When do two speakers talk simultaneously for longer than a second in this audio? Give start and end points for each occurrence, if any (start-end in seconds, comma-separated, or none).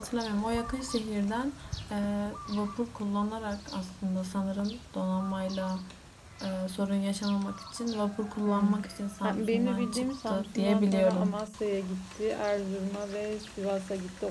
9.2-11.5